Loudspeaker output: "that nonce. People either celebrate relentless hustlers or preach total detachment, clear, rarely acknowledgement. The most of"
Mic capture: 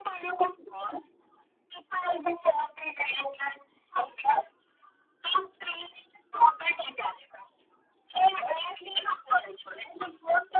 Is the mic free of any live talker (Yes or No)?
Yes